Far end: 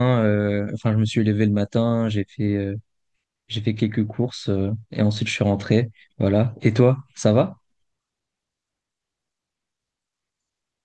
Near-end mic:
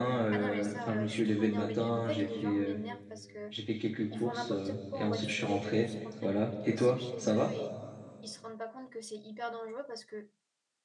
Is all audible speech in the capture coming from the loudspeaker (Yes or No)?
No